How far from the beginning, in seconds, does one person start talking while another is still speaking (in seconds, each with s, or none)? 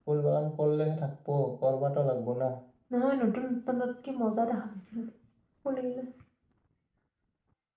none